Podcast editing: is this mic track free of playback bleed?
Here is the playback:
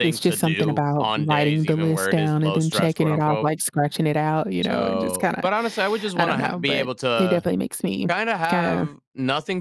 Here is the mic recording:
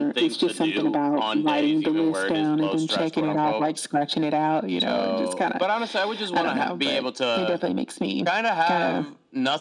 No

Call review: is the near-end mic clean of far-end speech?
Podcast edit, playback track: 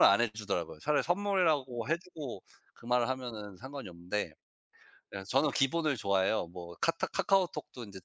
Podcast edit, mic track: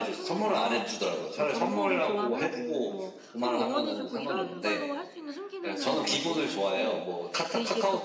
No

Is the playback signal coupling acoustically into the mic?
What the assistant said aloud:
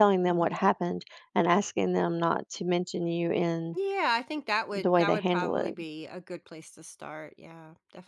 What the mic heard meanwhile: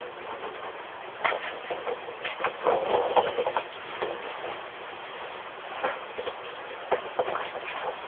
No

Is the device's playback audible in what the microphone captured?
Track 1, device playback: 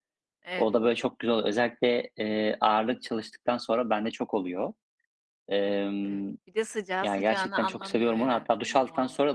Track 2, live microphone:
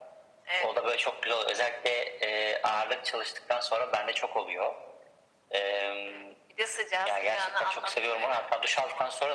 Yes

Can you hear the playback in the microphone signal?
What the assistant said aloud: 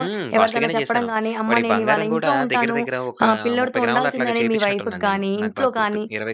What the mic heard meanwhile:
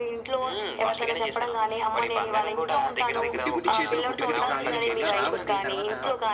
Yes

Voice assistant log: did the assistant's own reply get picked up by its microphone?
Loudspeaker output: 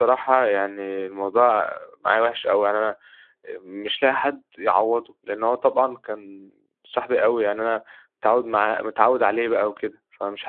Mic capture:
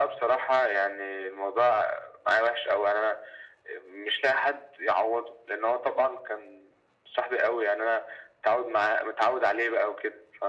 Yes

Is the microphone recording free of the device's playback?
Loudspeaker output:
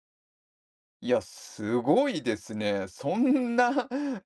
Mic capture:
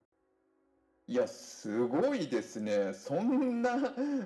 No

